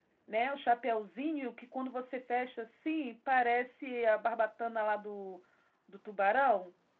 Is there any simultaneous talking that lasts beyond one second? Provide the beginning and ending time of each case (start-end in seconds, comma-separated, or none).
none